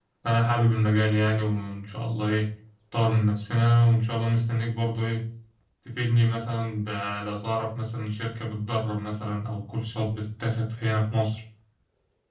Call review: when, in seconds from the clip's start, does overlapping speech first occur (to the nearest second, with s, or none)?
none